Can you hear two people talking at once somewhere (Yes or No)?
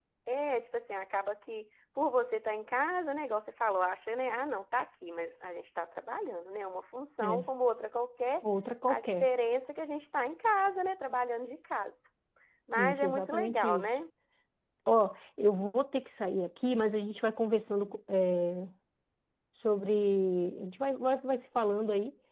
Yes